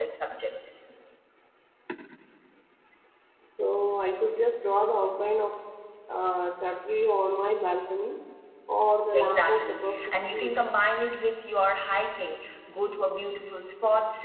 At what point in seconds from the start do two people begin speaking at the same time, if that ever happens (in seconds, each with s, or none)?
9.2 s